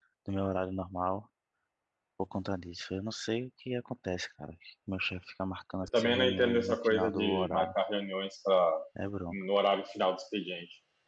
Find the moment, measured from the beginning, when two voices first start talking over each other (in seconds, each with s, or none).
5.9 s